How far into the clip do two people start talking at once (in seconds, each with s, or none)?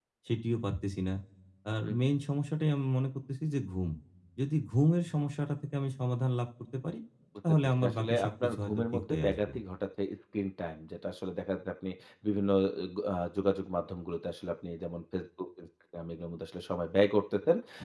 7.6 s